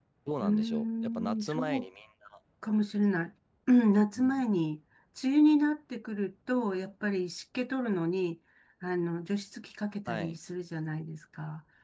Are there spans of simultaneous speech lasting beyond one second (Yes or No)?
Yes